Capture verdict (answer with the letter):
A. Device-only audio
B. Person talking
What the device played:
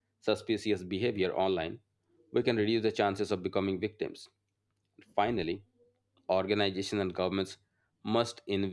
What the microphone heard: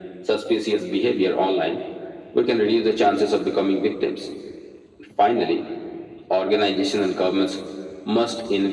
A